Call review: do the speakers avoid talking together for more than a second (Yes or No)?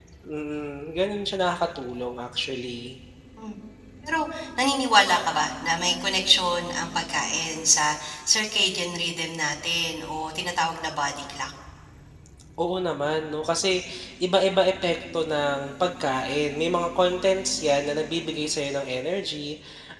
Yes